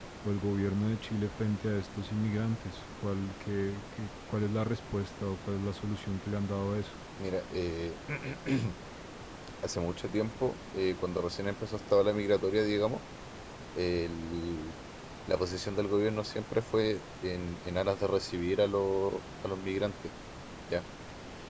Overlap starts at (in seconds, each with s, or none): none